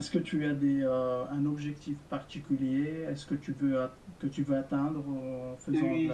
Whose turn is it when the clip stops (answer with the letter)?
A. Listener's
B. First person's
A